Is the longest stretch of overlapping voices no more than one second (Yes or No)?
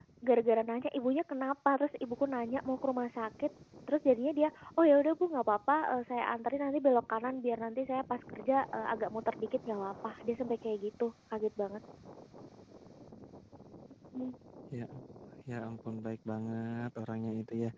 Yes